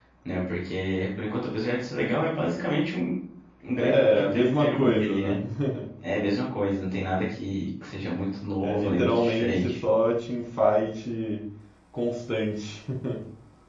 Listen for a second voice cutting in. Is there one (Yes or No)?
Yes